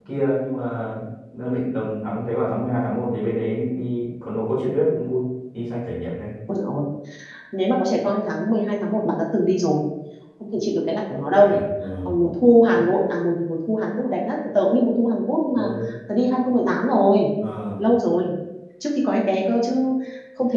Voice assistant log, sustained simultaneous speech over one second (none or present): none